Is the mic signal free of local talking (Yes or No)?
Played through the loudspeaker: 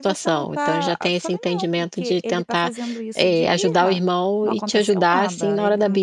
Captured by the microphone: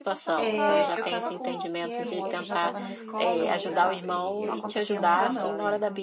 No